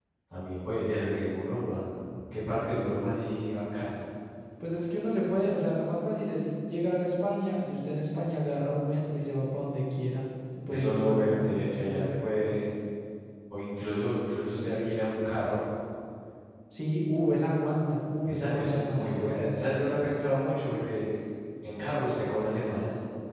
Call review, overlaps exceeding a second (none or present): present